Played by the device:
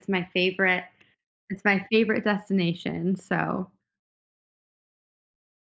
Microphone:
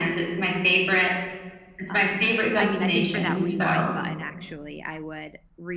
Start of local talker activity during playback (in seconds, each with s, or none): 1.9 s